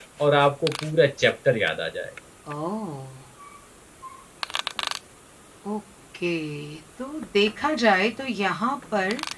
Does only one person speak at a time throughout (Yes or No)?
Yes